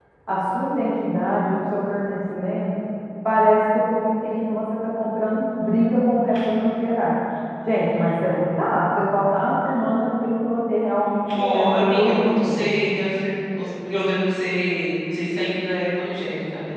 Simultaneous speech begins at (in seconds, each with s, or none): 11.3 s